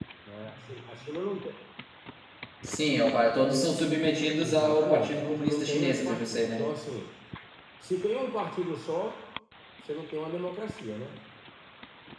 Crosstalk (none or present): present